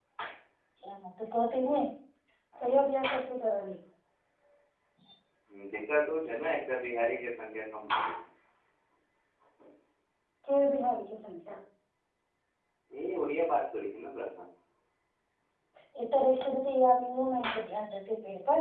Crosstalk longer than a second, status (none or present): none